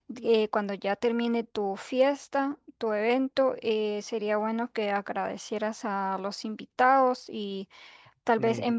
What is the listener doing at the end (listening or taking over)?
listening